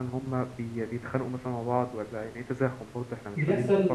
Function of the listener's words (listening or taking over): taking over